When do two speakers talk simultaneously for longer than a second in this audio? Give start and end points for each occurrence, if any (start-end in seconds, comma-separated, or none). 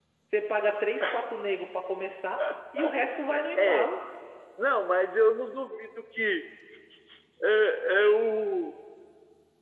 none